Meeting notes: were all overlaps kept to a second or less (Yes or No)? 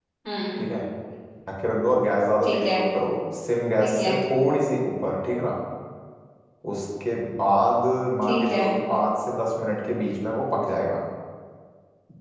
Yes